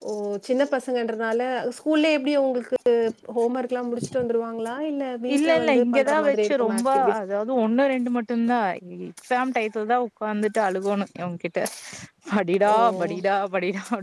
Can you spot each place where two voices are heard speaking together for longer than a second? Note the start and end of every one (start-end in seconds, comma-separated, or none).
5.3-7.1